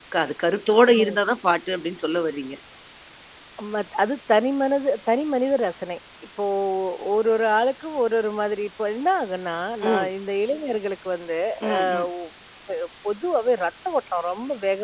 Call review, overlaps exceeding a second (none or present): none